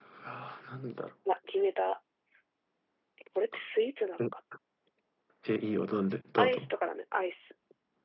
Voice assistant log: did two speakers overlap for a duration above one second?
No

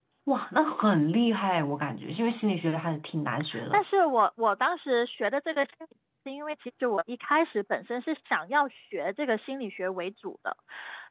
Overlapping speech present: No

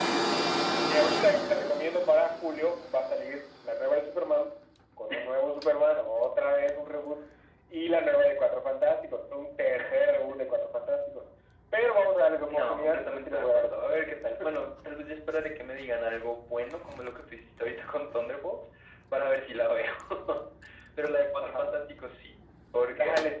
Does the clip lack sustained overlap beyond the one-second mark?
No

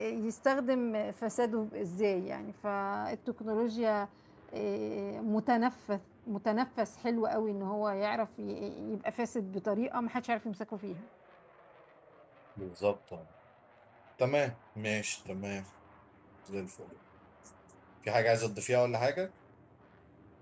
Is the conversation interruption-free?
Yes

